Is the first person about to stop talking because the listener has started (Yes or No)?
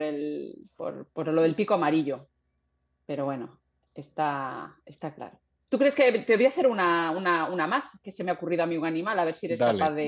No